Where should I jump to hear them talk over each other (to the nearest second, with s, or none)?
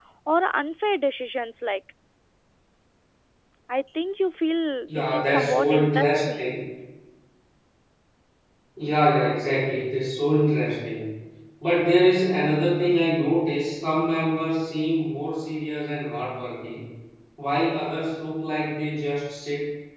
5 s